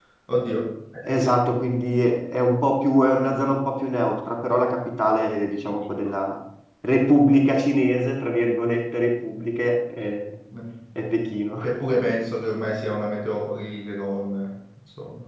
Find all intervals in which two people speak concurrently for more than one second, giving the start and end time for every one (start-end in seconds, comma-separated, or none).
none